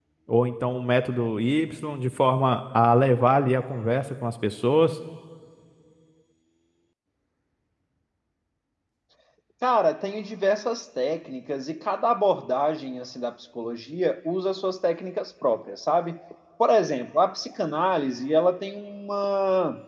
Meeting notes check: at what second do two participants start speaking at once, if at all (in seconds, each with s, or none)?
none